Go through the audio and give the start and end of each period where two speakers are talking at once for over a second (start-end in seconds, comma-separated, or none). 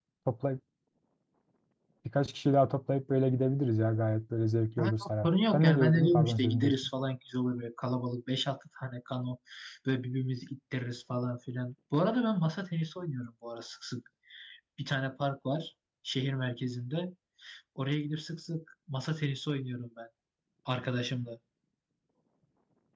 4.8-6.7